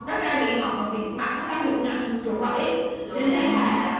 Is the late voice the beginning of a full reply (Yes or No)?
No